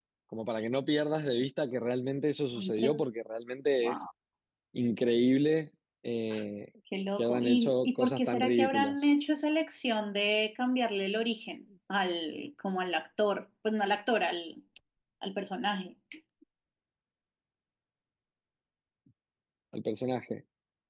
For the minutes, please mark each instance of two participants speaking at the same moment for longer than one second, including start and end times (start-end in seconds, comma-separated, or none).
7.2-9.1